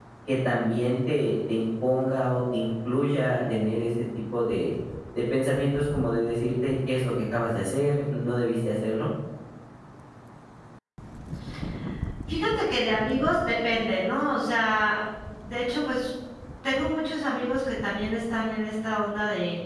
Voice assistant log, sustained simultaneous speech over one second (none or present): none